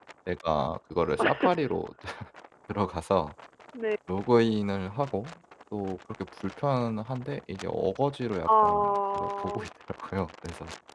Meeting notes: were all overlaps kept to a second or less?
No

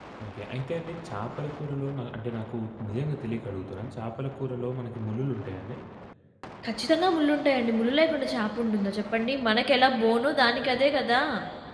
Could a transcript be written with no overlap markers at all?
Yes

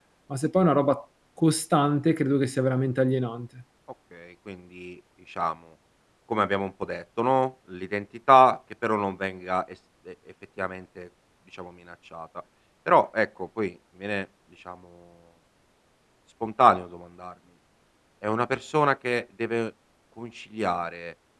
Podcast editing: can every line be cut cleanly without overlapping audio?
Yes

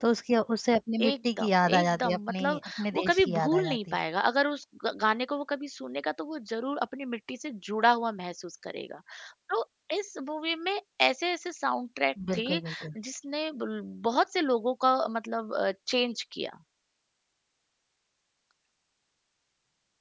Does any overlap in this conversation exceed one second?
Yes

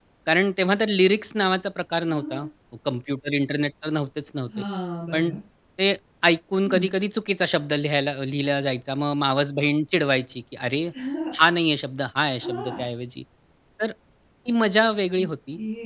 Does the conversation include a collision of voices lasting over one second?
No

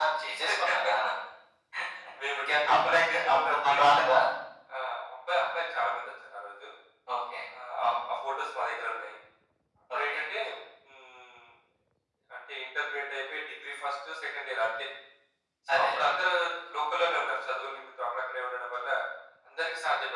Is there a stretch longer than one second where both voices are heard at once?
Yes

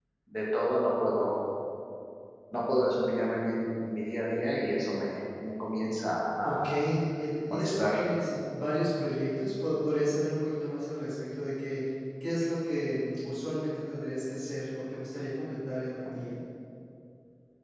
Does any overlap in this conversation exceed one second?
No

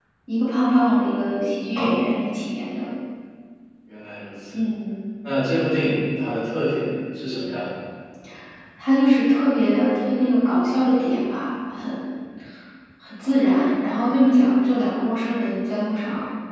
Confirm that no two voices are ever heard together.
Yes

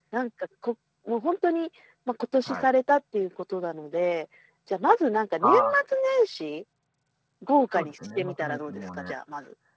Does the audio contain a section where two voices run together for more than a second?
Yes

